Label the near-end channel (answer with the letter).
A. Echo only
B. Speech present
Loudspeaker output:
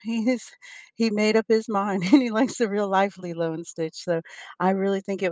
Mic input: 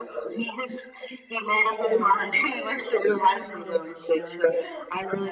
B